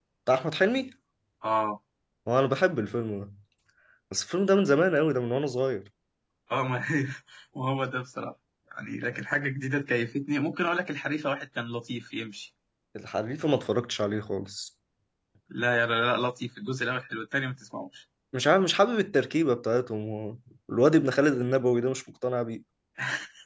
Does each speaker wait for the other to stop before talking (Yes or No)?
Yes